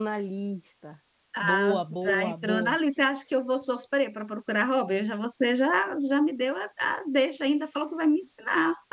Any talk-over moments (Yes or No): Yes